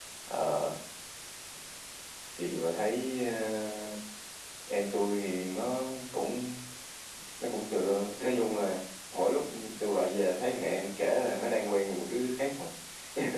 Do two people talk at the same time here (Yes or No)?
No